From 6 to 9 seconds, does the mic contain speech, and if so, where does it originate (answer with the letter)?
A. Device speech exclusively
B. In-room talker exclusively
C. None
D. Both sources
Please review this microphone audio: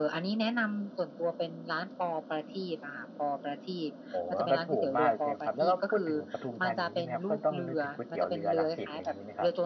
D